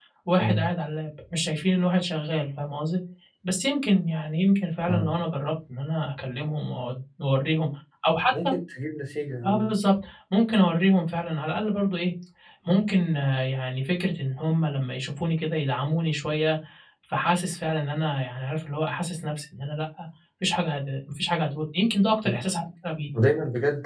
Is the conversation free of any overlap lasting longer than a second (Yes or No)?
Yes